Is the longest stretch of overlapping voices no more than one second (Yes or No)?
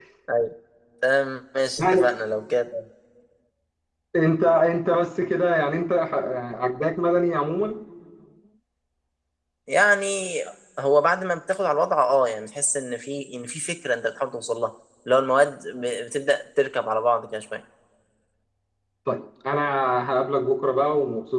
Yes